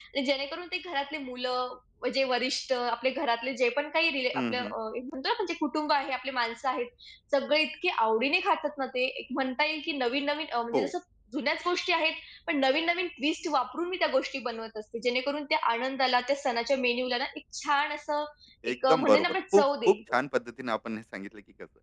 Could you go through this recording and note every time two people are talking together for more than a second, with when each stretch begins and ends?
18.7-20.2

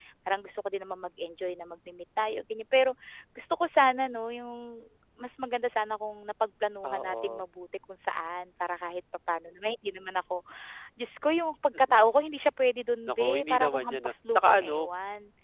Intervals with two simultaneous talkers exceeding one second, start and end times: 13.1-14.9

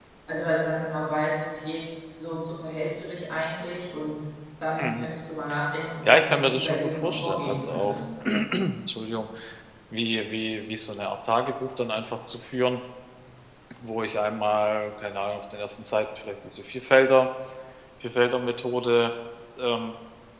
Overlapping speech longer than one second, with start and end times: 6.0-8.0

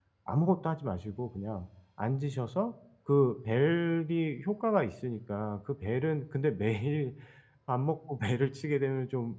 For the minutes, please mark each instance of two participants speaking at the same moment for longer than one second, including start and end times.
none

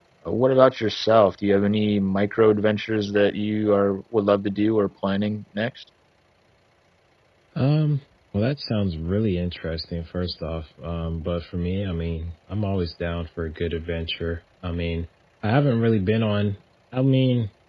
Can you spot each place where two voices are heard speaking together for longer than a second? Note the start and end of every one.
none

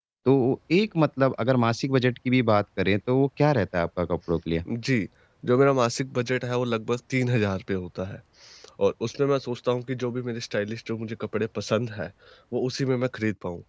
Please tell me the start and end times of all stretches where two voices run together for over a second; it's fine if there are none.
none

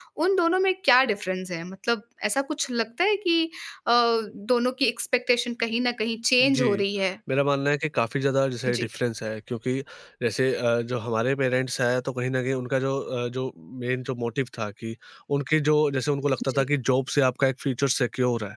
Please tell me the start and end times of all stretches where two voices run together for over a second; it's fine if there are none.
none

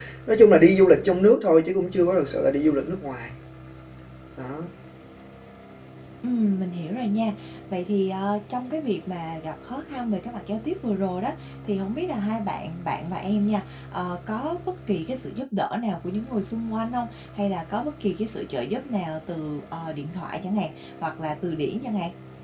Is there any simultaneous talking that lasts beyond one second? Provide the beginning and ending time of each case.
none

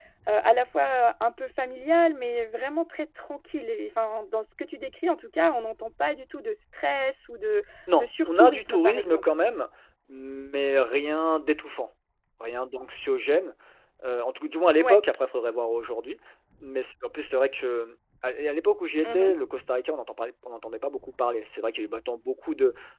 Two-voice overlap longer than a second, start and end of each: 8.0-9.2

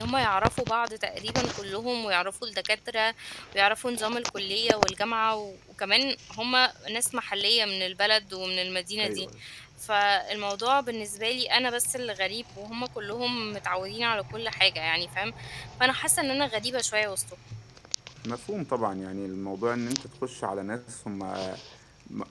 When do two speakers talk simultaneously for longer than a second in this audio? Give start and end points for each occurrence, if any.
none

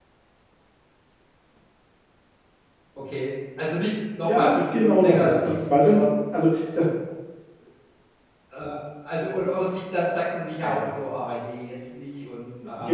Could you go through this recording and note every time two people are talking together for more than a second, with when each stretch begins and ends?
4.3-6.2

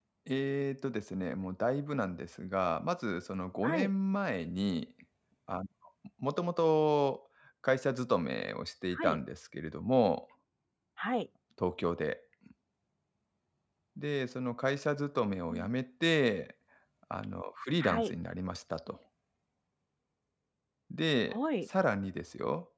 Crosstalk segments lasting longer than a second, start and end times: none

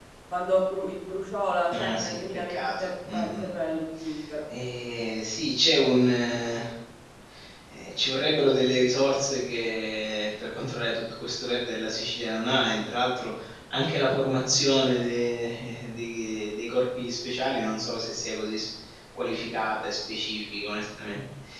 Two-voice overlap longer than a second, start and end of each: 1.7-3.5

